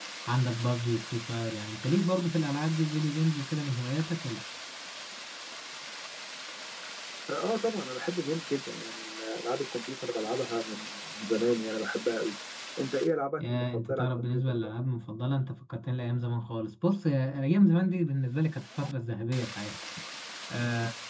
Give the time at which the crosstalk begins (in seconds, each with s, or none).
13.4 s